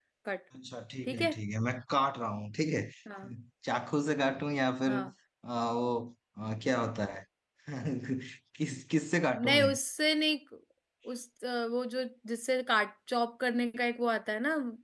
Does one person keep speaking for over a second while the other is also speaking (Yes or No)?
No